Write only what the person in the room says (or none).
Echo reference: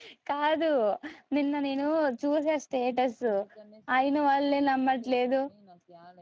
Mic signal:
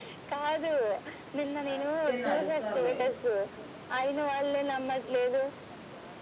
ఆయితే నడుస్తారులే ఏం గాదు